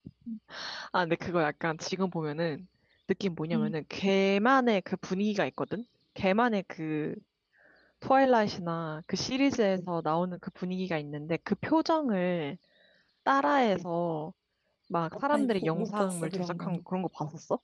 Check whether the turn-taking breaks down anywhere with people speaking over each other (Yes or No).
Yes